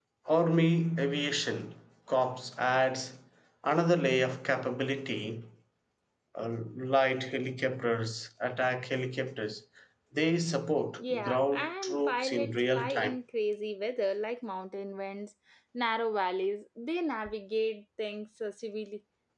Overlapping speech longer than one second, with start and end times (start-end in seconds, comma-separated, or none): 11.0-13.2